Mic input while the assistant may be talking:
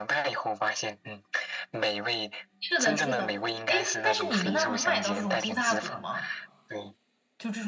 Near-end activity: present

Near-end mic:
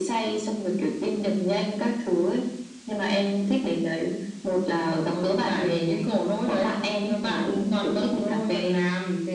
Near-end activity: none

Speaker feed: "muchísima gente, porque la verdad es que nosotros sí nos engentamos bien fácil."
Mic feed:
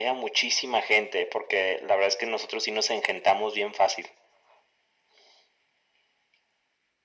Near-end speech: none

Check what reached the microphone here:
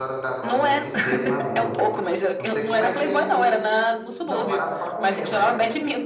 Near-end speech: present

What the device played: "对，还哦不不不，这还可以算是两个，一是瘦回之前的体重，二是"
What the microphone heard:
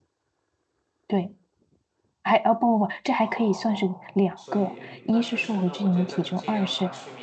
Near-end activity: present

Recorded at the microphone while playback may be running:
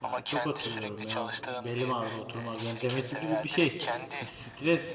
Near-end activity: present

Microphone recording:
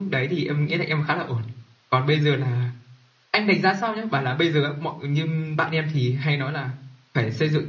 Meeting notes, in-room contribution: none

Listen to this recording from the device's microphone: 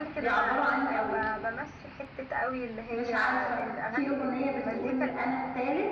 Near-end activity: present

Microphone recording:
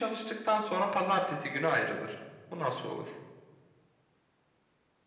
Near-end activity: none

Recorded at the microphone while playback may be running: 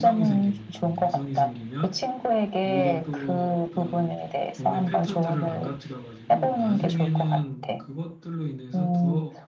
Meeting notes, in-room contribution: present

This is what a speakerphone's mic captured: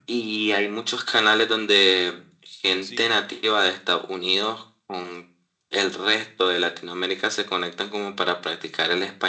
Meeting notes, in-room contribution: present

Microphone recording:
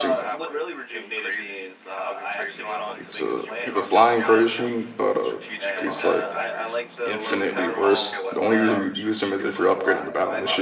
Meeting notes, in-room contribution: present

